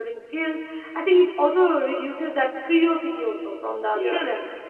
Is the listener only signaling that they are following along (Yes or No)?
Yes